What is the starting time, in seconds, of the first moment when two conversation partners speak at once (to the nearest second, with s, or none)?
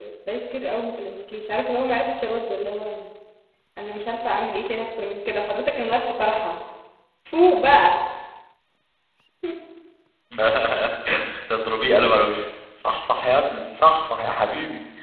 none